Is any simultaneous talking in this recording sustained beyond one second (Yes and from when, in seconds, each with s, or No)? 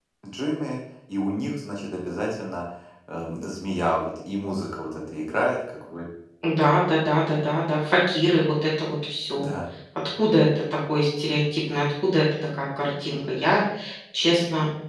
No